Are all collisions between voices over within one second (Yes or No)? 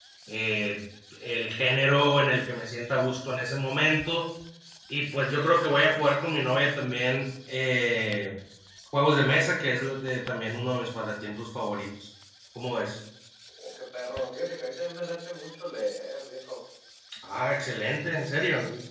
Yes